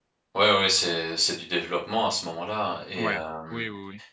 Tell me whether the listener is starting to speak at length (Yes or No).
Yes